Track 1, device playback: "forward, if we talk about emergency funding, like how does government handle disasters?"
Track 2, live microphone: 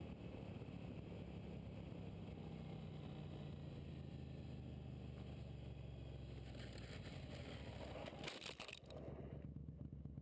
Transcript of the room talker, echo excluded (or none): none